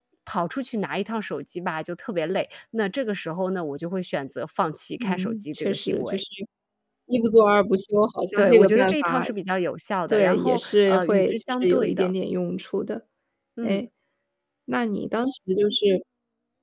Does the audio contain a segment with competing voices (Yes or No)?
Yes